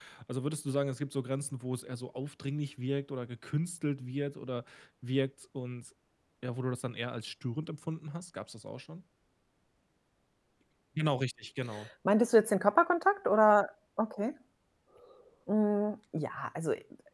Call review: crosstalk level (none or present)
none